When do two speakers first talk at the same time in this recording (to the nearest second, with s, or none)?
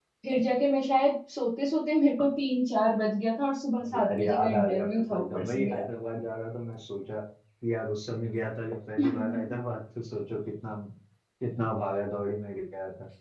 4 s